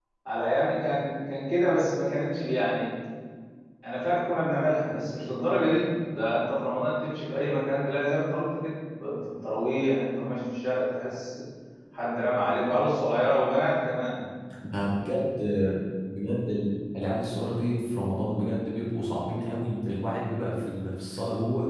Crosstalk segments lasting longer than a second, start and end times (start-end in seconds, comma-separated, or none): none